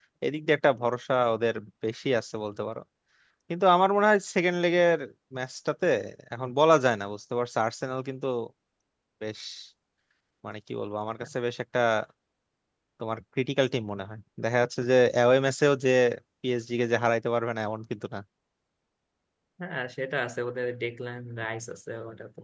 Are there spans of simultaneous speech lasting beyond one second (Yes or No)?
No